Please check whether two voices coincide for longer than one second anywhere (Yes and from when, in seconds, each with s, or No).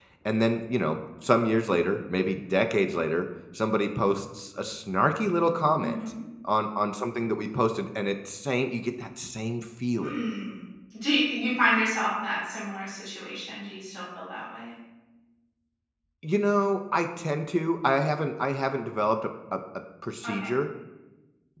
No